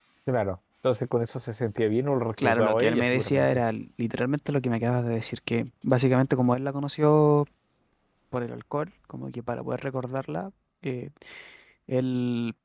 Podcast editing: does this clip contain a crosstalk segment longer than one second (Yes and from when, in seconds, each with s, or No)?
Yes, from 2.4 s